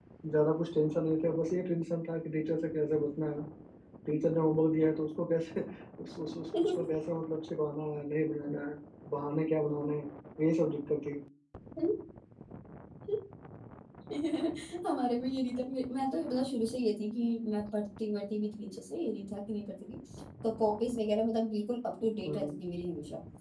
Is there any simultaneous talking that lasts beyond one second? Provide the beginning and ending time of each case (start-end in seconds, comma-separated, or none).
none